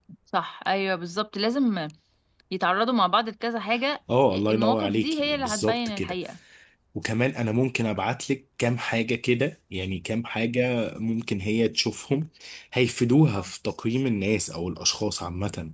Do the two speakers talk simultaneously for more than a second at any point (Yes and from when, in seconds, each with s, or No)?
Yes, from 4.1 s